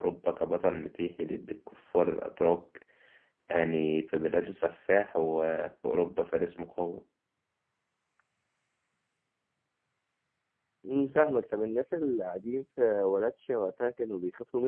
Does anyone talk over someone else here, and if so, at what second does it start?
none

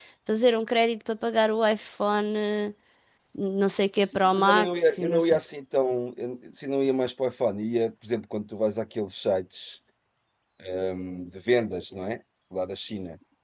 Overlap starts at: 4.0 s

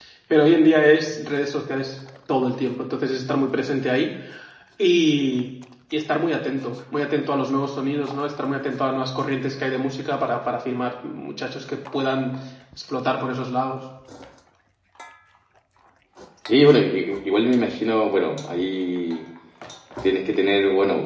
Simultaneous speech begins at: none

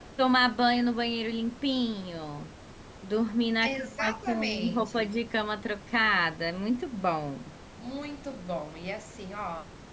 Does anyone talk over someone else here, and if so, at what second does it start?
3.6 s

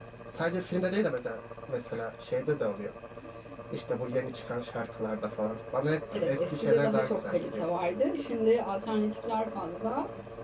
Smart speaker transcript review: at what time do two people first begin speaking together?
6.1 s

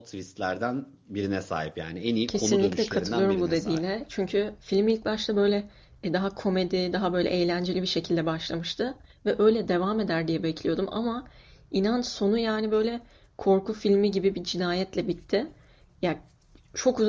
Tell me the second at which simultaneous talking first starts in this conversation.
2.3 s

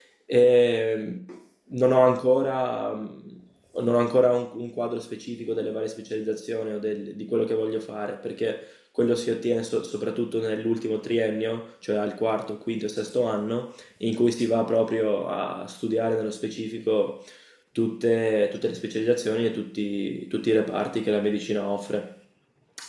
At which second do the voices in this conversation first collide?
none

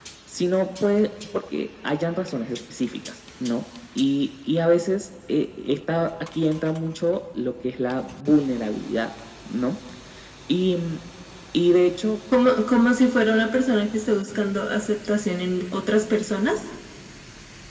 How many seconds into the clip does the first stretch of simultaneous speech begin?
none

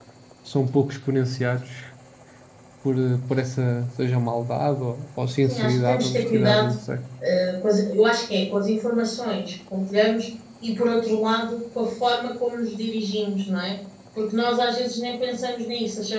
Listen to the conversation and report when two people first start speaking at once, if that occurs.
5.4 s

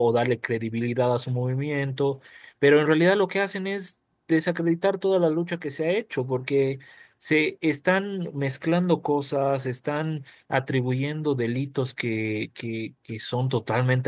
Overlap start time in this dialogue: none

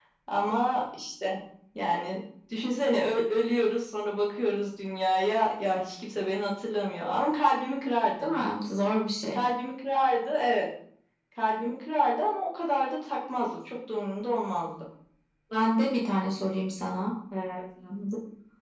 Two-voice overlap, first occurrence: none

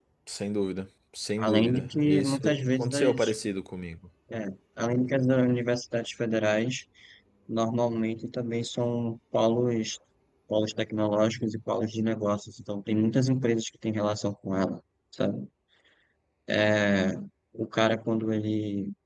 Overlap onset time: 1.4 s

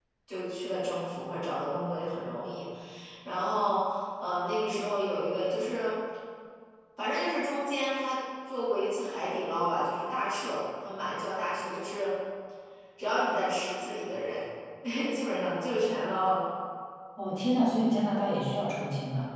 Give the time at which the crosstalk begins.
none

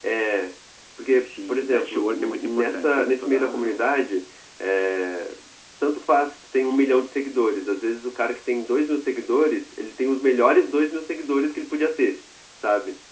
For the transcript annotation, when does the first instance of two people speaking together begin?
1.1 s

